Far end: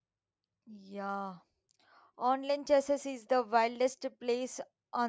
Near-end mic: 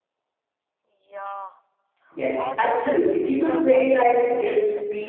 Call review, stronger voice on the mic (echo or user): user